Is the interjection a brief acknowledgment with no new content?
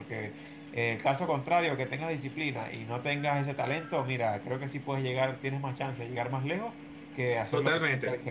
No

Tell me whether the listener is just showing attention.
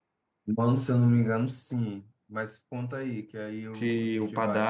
No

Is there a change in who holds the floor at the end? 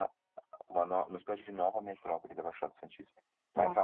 No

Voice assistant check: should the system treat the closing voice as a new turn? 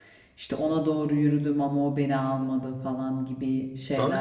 Yes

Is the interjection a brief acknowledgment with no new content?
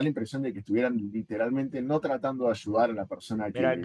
No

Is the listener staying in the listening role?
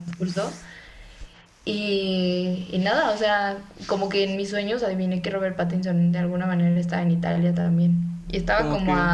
No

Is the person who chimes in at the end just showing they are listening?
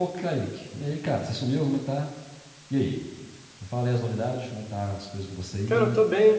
No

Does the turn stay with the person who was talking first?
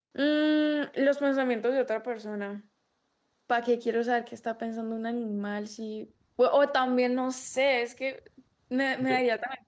Yes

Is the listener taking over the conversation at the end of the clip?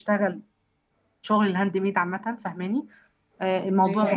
No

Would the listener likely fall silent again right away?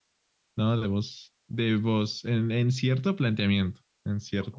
No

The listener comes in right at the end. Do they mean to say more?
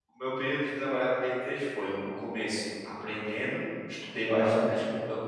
No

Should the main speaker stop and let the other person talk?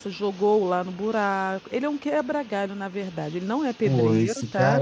Yes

